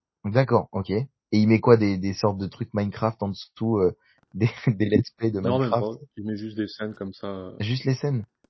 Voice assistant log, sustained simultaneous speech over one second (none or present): none